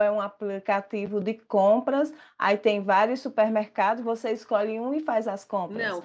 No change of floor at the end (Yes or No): No